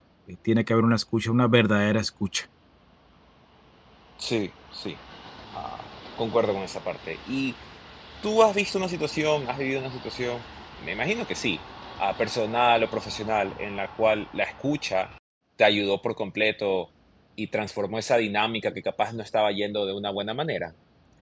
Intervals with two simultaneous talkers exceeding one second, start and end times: none

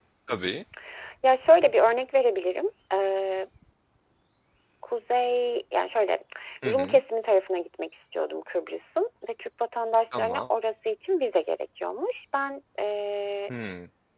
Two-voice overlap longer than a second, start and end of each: none

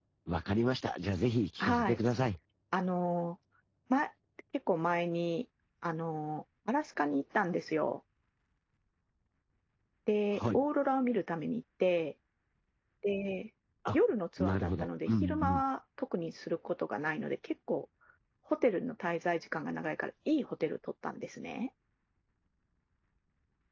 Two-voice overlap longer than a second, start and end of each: 14.4-15.6

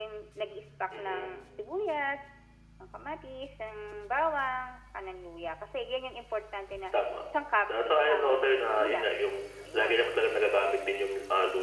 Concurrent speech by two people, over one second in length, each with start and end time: 7.8-9.1

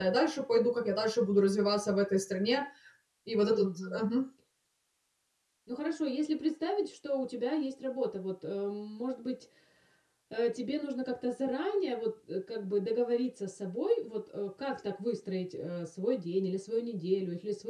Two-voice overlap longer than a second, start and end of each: none

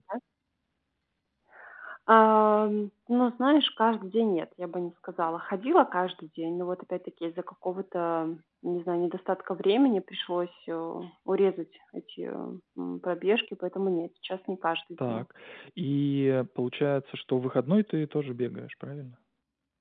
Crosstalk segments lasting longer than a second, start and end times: none

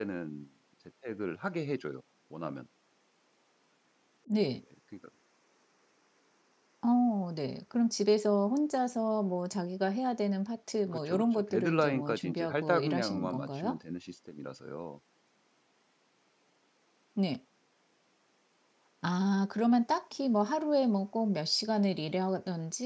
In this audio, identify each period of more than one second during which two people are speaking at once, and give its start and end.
11.1-13.8

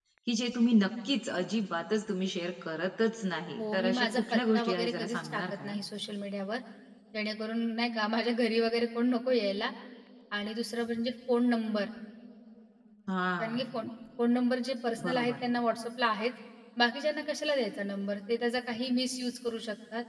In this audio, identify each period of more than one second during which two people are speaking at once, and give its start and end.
3.6-5.7

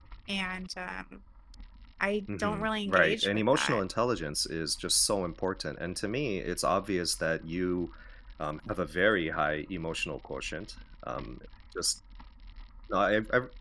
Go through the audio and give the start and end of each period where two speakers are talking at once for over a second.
2.4-3.8

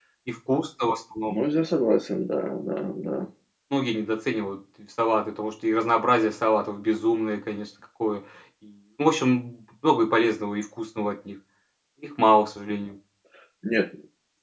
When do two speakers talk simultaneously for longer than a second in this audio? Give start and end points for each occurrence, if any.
none

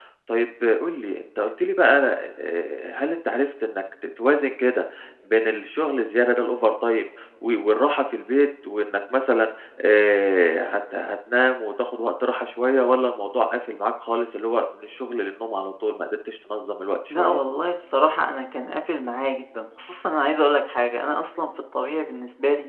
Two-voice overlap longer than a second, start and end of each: none

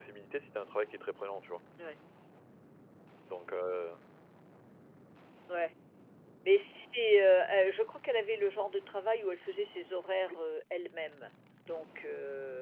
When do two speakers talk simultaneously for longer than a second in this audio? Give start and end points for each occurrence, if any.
none

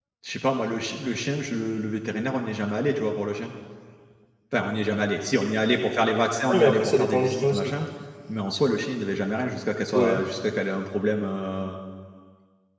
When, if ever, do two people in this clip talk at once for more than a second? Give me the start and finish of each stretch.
6.5-7.7

